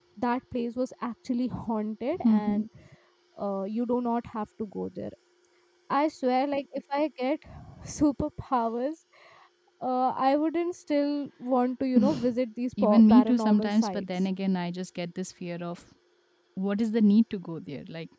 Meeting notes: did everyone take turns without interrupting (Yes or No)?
No